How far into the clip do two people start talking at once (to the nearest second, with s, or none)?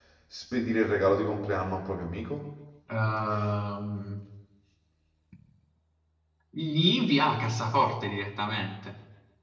none